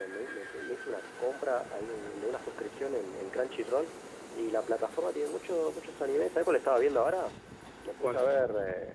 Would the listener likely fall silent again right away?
Yes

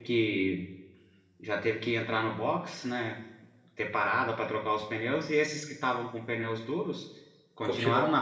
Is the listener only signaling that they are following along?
Yes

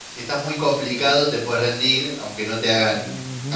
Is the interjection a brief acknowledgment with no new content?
No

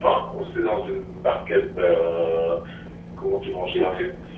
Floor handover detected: Yes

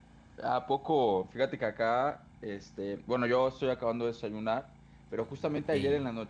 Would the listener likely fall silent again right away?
Yes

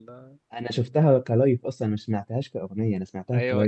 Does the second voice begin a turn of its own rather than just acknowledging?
Yes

